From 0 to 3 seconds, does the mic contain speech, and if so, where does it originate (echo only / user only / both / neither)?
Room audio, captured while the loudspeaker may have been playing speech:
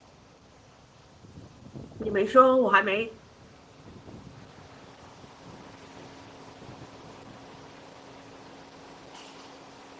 user only